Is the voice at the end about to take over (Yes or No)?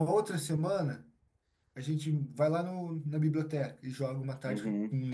Yes